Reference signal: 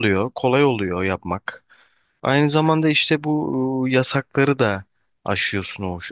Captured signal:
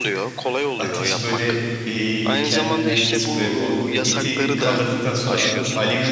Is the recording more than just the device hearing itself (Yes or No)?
Yes